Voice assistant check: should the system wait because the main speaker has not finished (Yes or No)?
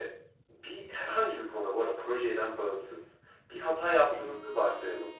Yes